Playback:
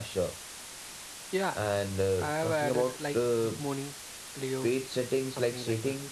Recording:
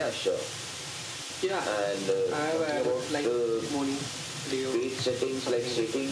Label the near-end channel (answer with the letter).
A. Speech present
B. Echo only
B